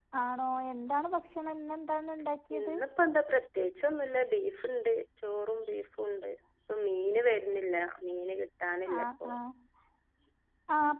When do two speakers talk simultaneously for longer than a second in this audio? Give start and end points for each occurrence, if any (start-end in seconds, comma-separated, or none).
none